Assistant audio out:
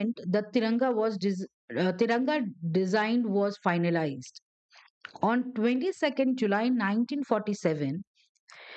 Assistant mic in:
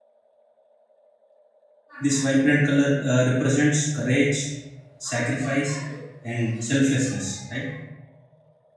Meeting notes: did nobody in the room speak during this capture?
No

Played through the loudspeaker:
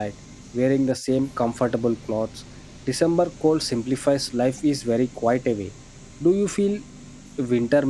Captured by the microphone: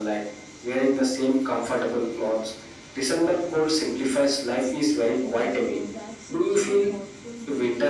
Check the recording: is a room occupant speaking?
Yes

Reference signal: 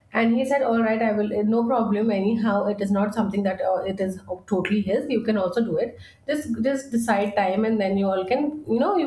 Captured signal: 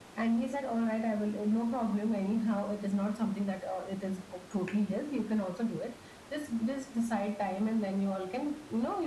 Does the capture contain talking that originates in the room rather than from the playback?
No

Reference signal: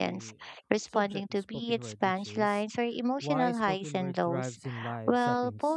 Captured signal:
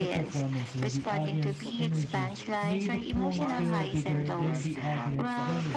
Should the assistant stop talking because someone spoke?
Yes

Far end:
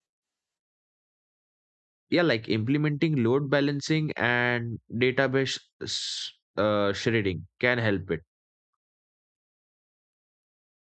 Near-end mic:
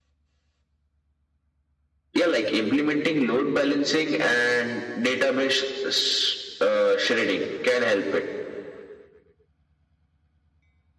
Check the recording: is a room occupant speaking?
No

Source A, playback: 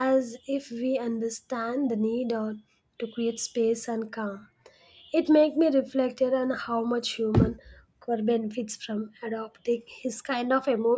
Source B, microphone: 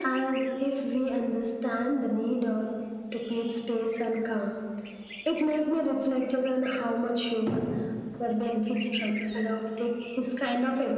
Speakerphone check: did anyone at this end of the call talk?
No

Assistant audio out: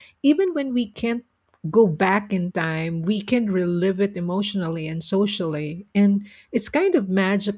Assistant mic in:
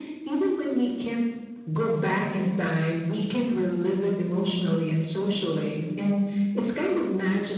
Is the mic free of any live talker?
Yes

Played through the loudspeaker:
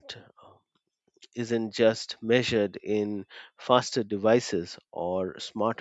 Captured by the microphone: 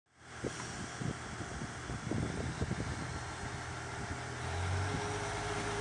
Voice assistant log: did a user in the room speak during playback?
No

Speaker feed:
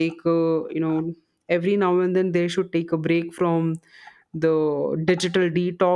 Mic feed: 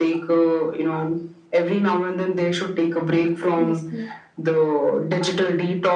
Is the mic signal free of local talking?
No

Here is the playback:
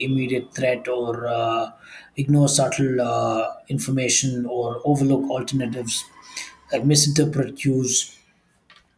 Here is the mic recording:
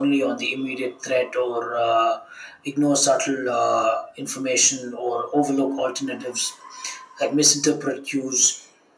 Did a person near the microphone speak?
No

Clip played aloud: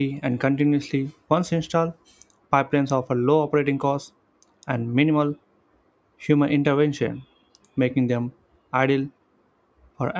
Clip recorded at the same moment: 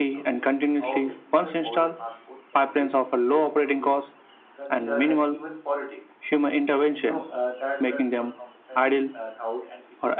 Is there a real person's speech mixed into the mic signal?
Yes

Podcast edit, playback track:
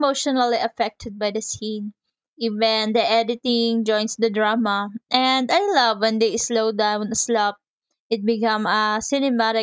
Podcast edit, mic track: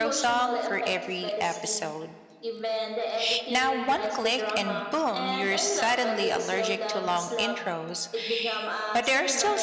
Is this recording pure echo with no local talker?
No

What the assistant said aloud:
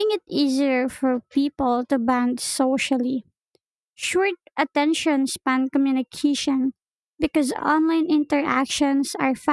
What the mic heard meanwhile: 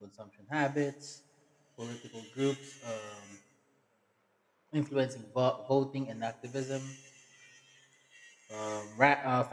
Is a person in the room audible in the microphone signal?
Yes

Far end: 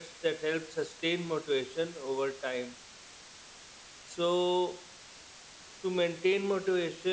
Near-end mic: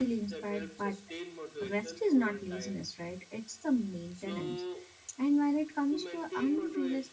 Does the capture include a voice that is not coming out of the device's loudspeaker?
Yes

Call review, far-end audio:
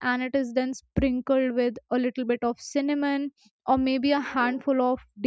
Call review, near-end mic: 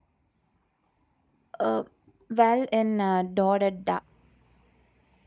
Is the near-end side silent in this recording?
No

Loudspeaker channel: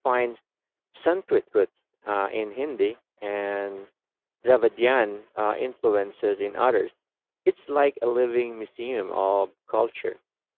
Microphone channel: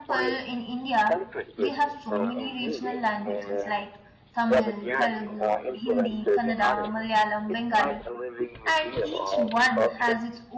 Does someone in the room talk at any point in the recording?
Yes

